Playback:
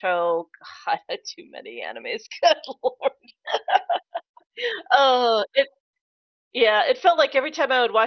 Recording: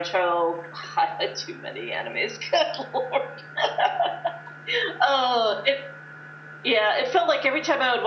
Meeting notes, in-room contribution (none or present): none